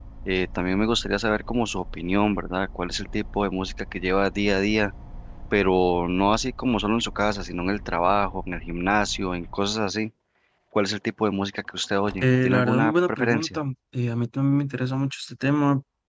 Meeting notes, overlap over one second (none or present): present